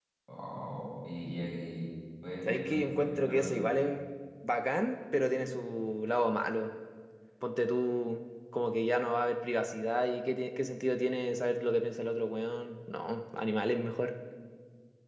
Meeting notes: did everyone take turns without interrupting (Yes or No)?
No